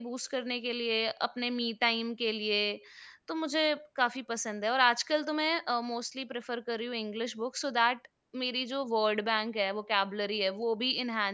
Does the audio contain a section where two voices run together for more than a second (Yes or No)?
No